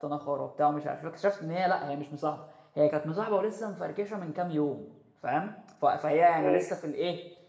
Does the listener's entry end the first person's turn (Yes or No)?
No